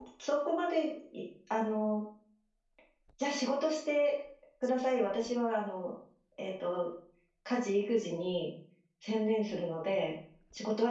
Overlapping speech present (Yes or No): No